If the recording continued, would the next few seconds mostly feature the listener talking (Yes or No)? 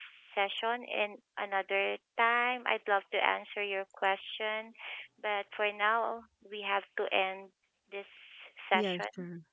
Yes